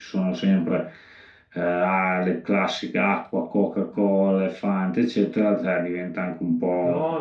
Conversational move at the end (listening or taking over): taking over